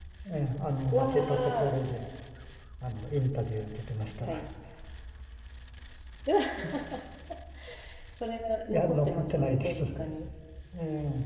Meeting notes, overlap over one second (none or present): present